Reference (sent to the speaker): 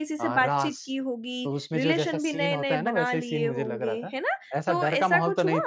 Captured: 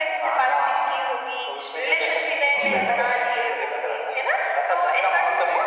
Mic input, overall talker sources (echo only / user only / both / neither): both